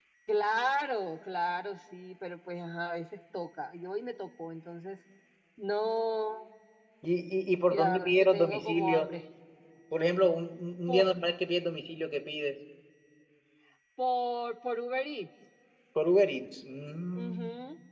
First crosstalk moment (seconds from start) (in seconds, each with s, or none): 7.7 s